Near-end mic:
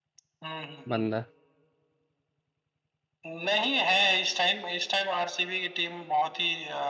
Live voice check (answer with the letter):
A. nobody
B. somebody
B